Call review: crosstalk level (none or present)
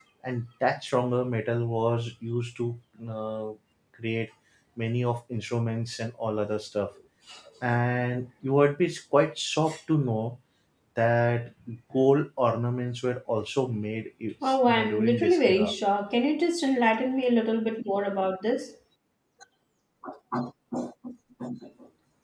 present